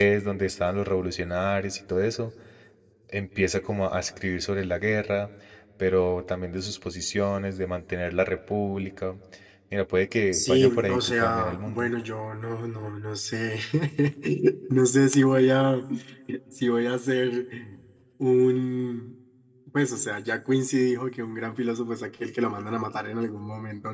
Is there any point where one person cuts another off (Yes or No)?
Yes